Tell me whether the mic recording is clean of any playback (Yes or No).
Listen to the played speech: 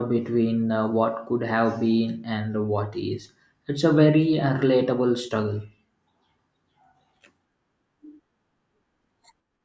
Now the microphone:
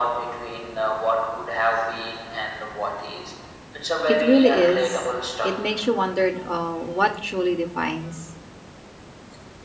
No